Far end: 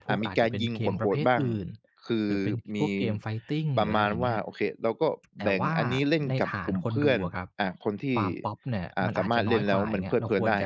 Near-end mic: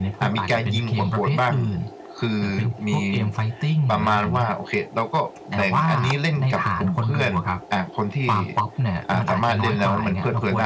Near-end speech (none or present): none